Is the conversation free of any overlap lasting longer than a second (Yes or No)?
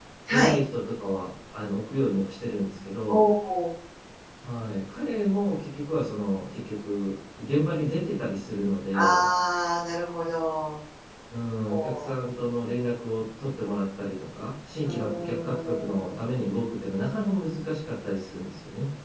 No